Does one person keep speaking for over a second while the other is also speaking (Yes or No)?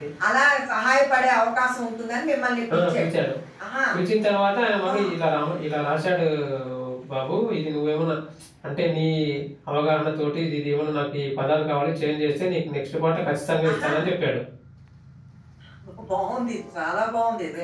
No